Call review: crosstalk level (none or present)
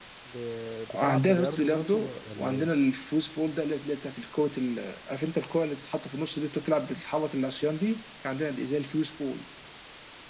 present